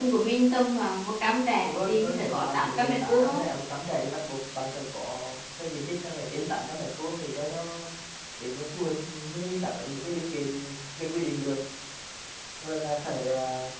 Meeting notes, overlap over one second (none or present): present